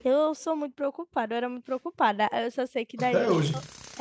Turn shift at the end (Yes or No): No